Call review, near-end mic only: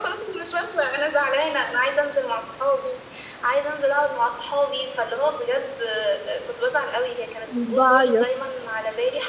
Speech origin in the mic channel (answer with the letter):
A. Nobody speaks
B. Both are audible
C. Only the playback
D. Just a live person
B